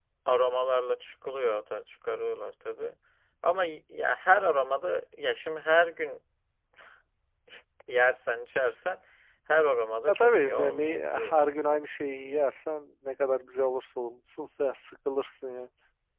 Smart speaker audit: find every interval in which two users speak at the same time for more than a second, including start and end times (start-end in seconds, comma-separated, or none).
10.1-11.8